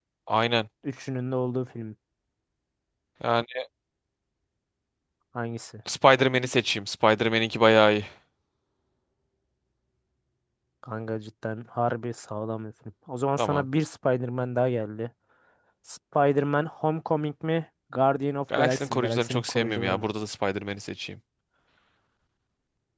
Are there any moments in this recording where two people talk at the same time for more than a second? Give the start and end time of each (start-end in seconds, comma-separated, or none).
18.6-20.0